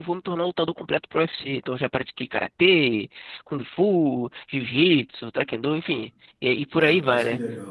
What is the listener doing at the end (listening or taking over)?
taking over